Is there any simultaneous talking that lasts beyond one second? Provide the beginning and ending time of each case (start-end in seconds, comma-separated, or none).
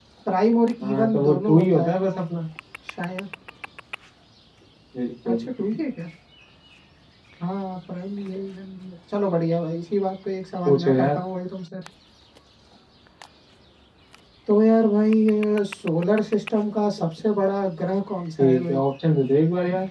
0.8-2.2